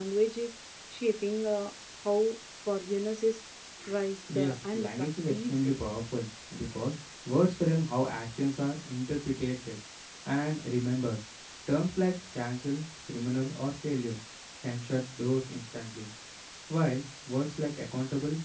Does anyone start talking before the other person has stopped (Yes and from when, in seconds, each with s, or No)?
Yes, from 4.3 s